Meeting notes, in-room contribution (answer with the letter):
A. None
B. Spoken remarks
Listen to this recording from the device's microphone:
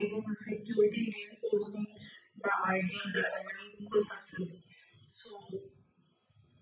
A